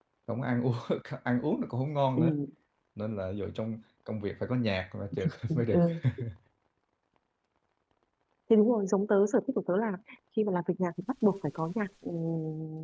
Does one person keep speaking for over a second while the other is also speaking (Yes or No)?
No